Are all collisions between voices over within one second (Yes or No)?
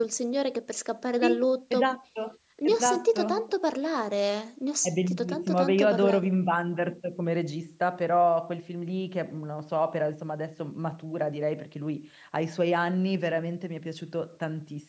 No